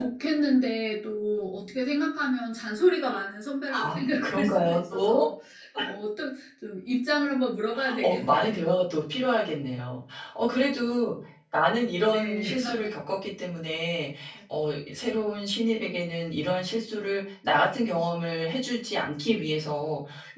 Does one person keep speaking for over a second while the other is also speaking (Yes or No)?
Yes